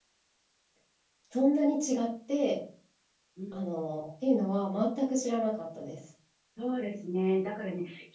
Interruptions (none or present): none